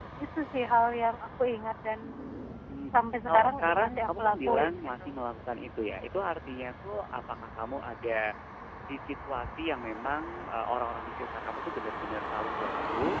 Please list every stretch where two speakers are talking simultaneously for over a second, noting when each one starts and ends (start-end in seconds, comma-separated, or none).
3.3-5.1